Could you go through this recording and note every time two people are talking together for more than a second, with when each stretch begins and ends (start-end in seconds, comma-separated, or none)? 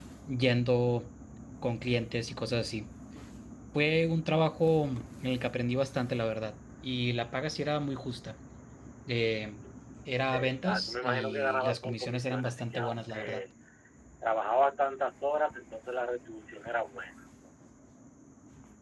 10.3-13.4